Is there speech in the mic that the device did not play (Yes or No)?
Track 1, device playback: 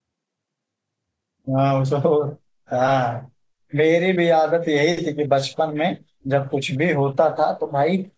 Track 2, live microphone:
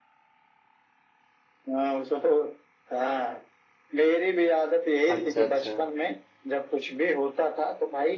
Yes